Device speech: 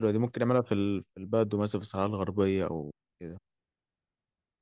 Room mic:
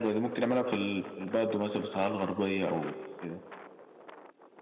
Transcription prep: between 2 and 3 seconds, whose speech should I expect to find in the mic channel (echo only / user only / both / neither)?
echo only